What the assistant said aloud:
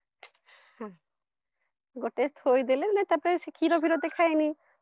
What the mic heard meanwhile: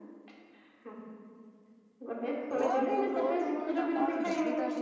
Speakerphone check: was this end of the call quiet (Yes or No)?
No